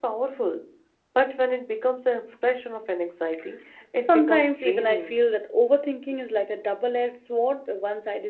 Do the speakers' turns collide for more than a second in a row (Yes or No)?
Yes